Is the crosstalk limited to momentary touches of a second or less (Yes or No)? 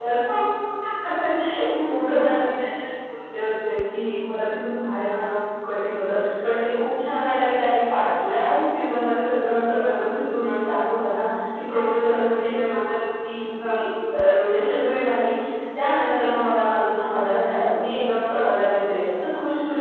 Yes